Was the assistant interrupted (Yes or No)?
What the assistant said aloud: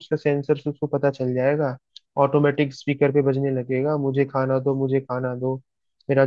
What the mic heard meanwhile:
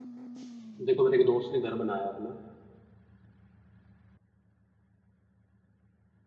Yes